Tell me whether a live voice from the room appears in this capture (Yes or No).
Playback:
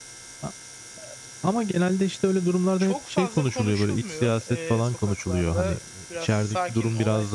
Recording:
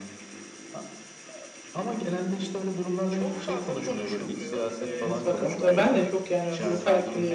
Yes